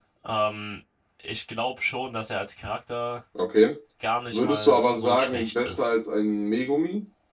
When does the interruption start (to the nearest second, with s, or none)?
4 s